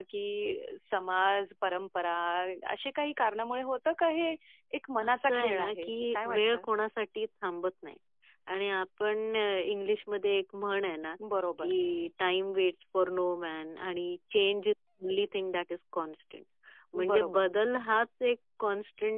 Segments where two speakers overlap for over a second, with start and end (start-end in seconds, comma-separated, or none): 5.1-6.6